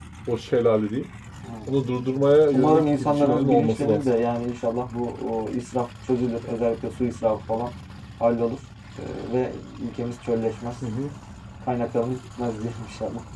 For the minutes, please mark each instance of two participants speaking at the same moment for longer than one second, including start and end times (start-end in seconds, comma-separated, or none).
2.5-4.1